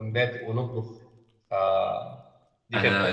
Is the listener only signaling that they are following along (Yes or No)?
No